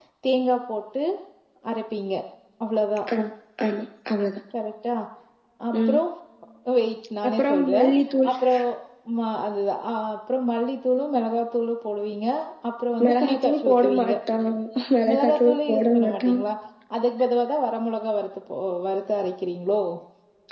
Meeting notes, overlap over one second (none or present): present